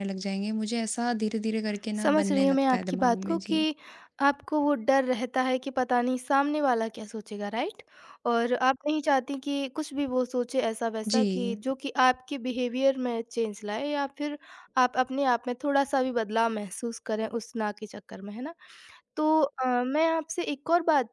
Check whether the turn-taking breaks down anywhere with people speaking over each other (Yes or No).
Yes